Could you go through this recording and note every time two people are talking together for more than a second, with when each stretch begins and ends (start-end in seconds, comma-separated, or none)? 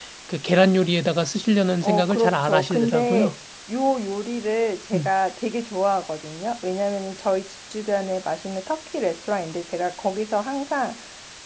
1.8-3.3